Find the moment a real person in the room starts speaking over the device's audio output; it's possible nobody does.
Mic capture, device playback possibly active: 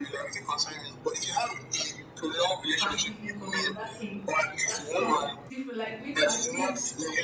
3 s

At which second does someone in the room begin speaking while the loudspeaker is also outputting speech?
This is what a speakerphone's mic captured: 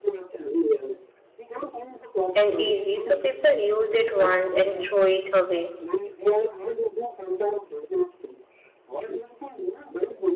2 s

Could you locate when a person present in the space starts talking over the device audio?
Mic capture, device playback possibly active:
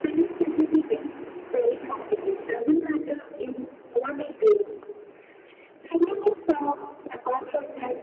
none

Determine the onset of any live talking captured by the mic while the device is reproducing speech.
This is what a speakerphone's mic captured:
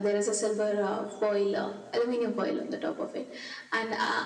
none

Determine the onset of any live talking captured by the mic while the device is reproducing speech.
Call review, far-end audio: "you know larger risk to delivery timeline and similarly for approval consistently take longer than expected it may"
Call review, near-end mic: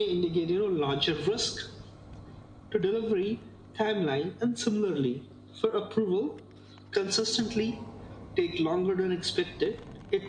none

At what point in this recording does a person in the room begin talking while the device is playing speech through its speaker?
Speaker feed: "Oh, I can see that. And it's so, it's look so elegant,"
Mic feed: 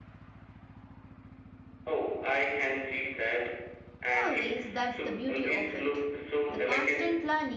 4 s

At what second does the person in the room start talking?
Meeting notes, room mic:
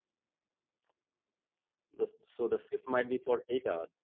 2 s

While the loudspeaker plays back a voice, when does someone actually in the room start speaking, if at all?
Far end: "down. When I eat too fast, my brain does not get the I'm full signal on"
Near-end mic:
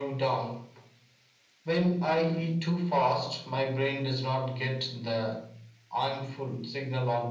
none

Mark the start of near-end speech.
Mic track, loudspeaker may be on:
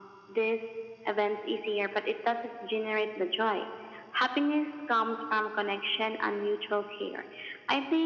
none

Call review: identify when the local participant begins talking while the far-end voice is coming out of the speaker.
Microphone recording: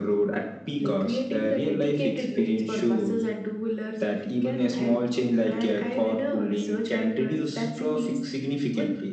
none

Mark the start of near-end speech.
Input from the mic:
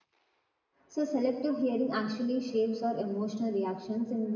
1 s

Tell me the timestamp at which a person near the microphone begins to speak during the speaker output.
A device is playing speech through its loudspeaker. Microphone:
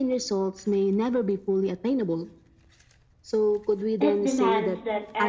4 s

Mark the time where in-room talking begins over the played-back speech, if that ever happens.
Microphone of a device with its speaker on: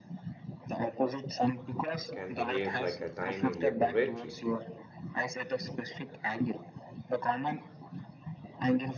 2 s

